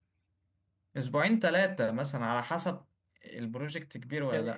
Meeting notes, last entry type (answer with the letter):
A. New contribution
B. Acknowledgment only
A